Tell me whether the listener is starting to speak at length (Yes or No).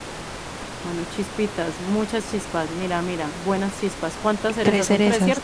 Yes